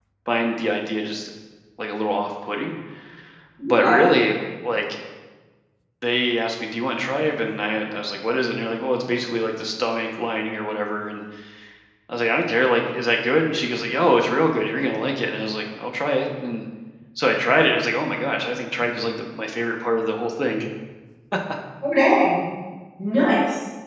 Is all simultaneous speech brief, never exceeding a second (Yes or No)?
Yes